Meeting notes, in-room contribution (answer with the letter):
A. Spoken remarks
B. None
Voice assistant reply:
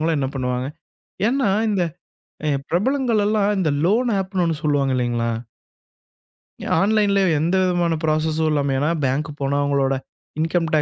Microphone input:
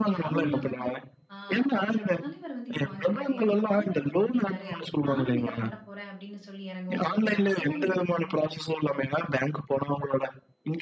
A